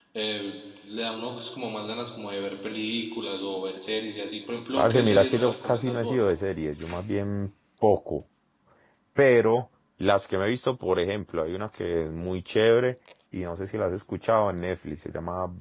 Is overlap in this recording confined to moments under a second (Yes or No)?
No